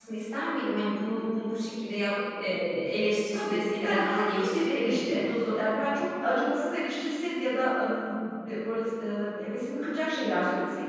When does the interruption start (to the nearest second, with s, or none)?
3 s